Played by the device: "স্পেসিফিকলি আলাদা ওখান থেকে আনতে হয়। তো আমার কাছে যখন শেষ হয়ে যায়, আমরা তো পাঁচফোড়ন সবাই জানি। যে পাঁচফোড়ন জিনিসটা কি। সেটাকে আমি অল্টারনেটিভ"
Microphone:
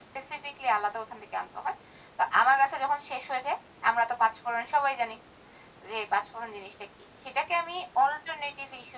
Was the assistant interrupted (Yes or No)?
No